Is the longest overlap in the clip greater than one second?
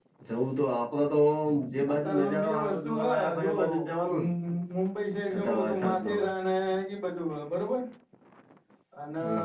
Yes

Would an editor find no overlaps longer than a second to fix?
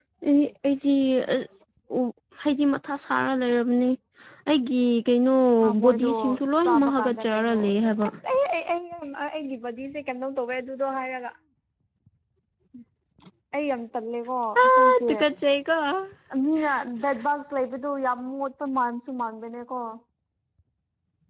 No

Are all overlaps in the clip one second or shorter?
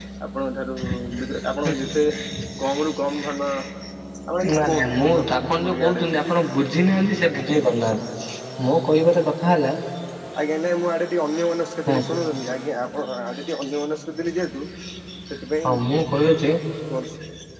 No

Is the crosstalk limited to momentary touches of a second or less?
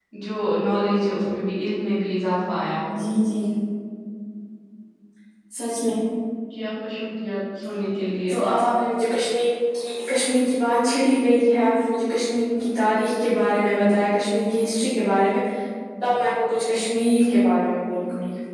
Yes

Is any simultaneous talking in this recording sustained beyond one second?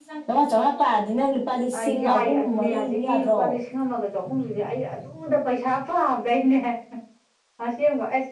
Yes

